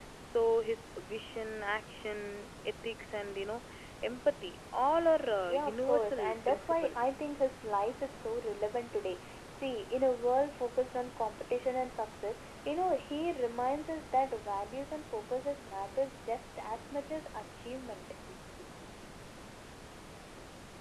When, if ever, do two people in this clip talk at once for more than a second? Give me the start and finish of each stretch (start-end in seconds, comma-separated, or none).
5.5-7.1